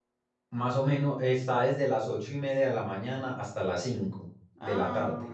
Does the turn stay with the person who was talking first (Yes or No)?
No